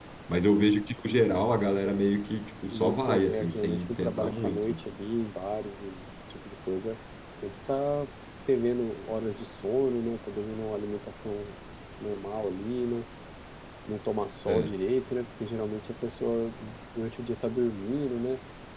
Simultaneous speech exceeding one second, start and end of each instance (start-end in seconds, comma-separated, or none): 2.7-4.8